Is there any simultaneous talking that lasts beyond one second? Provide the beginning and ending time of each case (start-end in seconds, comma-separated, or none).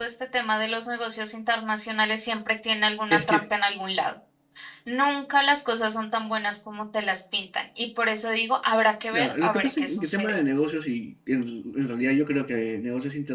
9.1-10.4